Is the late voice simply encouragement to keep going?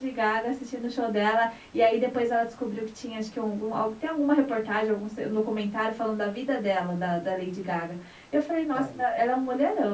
Yes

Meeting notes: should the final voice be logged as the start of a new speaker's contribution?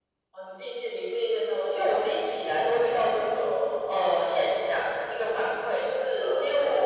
No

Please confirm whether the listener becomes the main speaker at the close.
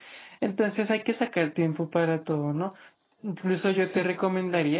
No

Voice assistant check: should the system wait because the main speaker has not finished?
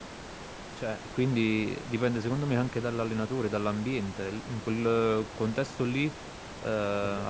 Yes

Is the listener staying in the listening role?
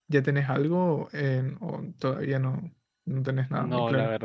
No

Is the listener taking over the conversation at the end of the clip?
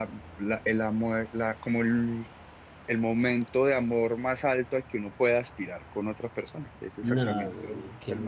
Yes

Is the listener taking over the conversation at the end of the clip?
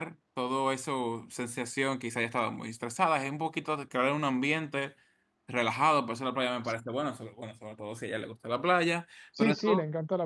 Yes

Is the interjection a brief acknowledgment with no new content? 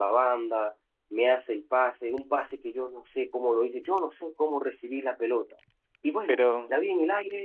Yes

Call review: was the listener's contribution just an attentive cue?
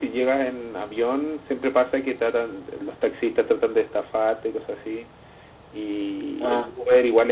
Yes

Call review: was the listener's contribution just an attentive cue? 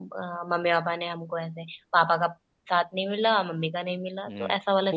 No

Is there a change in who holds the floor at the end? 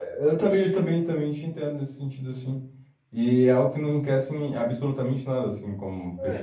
Yes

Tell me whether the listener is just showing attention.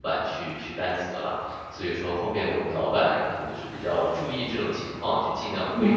No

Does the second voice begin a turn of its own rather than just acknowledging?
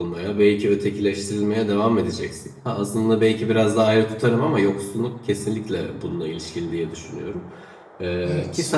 No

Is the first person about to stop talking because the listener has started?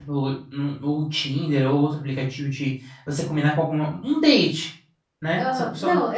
Yes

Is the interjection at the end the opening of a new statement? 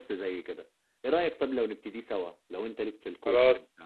Yes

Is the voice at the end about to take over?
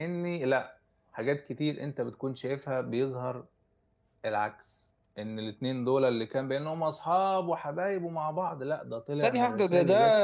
Yes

